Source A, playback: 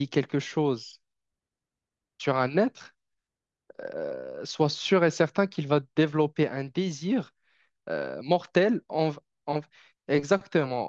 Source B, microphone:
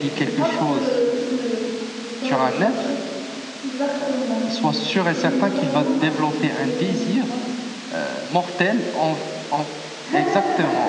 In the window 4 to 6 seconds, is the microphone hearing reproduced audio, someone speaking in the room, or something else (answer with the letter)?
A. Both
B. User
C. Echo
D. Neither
A